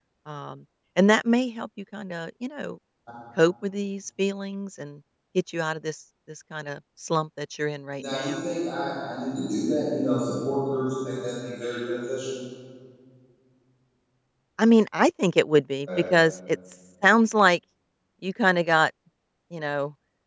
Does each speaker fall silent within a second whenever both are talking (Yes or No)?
Yes